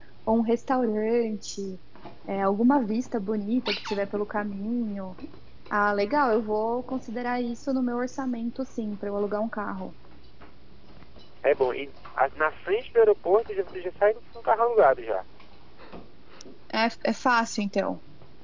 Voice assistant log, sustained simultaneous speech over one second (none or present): none